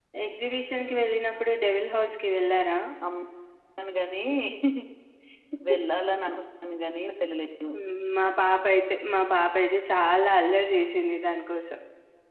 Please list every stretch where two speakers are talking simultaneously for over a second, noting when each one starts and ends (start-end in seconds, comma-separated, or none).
none